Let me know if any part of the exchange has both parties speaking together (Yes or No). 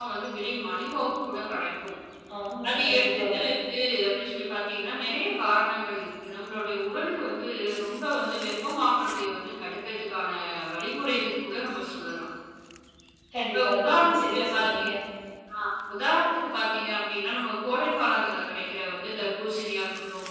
Yes